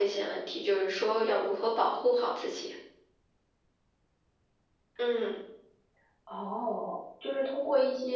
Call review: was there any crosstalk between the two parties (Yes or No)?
No